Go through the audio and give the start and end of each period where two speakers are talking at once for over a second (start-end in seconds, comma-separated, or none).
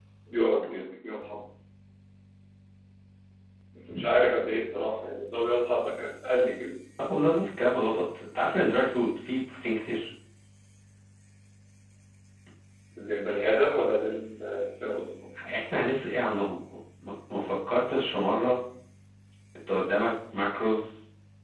none